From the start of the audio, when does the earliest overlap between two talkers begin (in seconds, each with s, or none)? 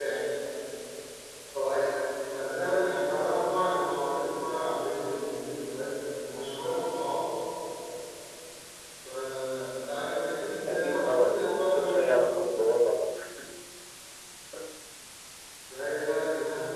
10.7 s